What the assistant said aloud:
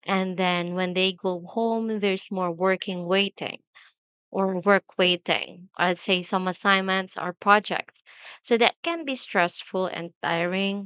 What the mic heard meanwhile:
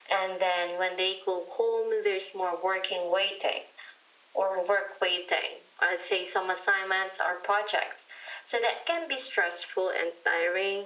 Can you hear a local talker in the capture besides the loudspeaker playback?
No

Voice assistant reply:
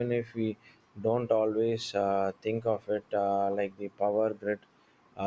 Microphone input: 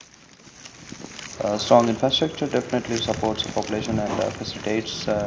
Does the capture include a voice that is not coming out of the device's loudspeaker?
Yes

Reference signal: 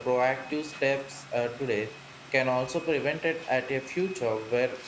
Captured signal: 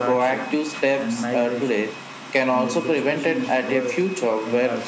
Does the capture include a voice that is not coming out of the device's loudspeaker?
Yes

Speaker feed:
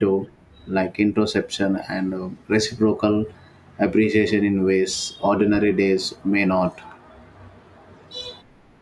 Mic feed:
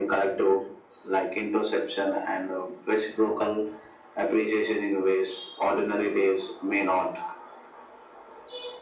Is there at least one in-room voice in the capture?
No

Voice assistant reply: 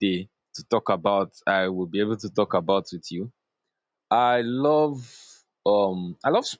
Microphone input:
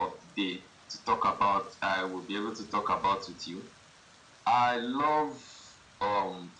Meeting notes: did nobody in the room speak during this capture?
Yes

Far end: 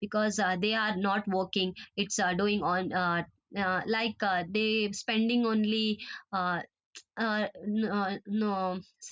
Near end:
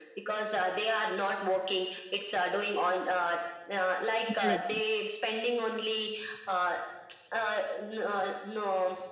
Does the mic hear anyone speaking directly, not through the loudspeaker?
Yes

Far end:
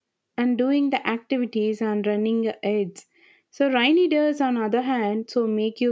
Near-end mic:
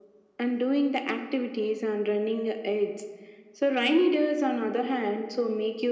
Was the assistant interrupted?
No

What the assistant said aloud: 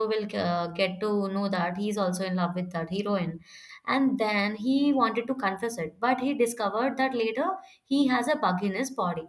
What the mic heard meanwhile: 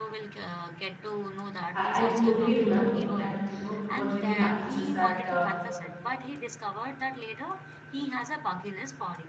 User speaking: Yes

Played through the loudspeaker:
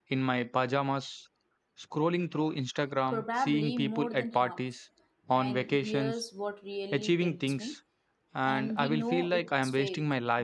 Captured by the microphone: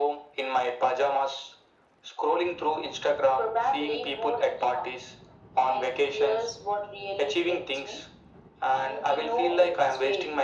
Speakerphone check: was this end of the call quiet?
Yes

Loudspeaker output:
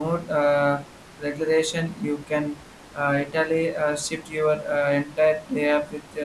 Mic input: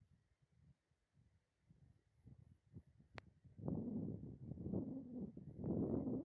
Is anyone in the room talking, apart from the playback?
No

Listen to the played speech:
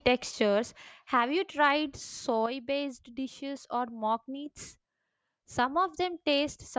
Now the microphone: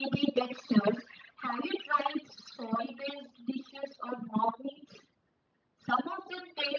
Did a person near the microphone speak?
No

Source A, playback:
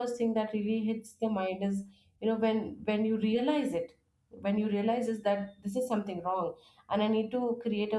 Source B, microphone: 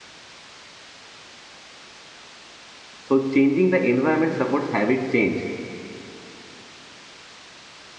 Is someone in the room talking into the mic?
Yes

